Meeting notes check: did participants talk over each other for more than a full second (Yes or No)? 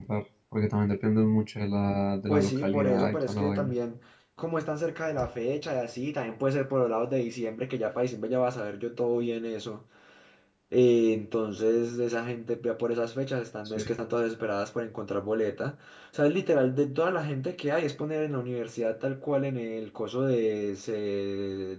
Yes